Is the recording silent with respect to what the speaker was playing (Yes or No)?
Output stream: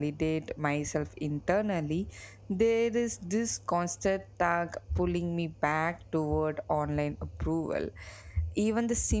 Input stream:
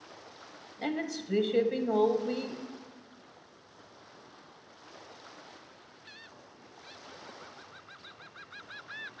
Yes